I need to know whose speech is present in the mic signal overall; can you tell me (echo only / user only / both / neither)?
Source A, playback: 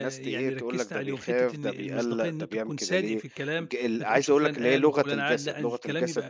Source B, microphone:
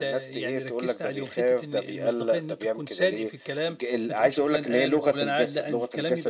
echo only